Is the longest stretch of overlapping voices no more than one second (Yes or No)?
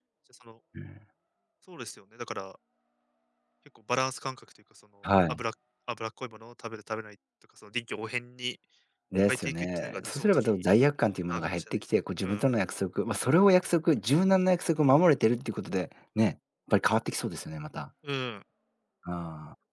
No